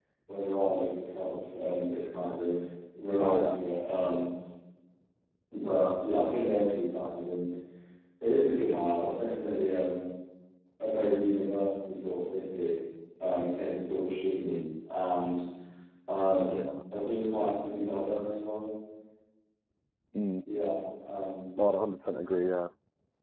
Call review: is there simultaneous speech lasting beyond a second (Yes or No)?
No